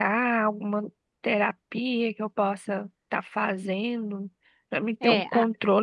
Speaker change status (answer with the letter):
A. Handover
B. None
B